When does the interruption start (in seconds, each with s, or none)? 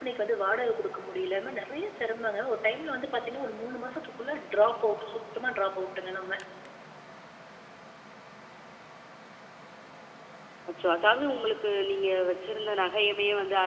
none